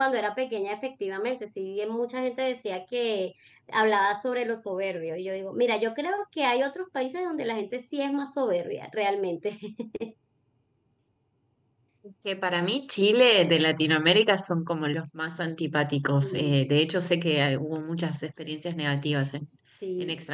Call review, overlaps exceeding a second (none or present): none